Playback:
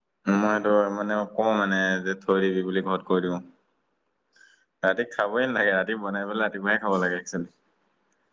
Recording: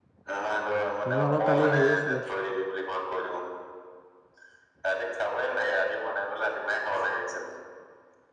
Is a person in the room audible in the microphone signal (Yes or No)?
Yes